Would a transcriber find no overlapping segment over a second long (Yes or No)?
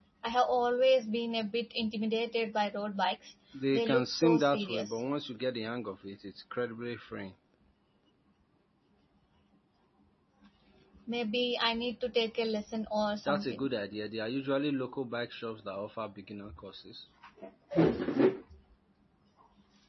No